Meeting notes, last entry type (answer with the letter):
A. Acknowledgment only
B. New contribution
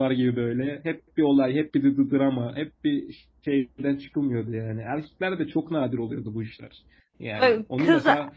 A